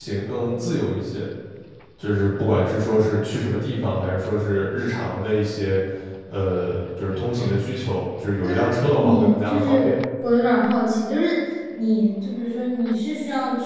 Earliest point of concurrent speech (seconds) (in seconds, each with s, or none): 8.4 s